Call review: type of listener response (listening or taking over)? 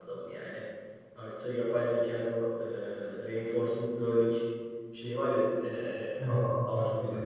listening